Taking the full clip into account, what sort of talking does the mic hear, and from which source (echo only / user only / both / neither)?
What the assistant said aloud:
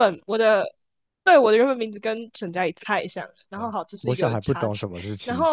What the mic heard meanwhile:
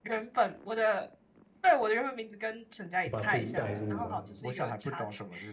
both